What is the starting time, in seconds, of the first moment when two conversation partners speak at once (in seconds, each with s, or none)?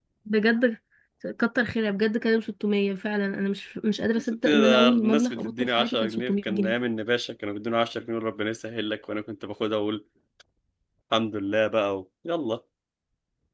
4.2 s